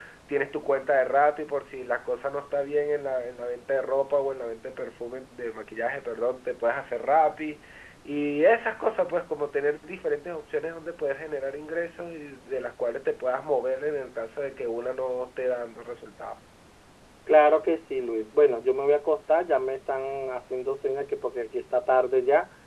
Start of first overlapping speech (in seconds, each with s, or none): none